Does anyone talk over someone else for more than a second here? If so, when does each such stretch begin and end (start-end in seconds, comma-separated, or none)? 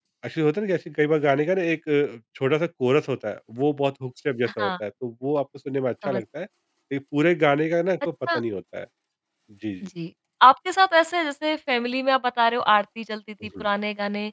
none